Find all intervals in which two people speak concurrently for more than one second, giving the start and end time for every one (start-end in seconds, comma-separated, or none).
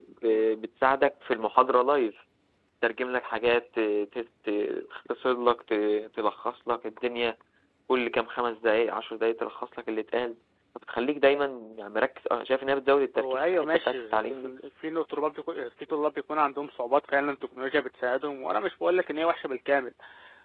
13.2-14.5